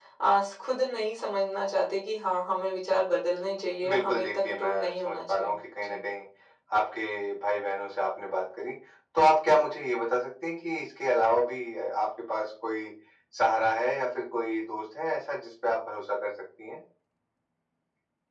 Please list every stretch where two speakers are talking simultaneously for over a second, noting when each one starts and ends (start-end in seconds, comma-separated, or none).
3.9-6.0